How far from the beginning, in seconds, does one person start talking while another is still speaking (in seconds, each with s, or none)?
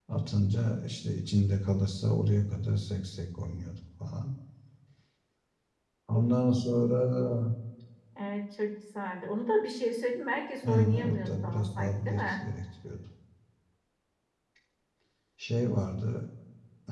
10.6 s